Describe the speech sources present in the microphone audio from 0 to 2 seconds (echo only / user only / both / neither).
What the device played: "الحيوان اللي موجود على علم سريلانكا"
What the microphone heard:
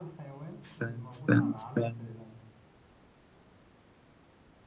both